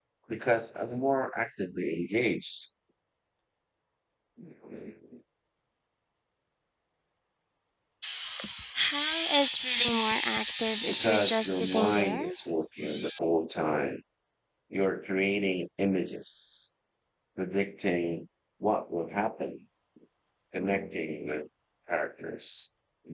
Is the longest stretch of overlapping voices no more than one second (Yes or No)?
No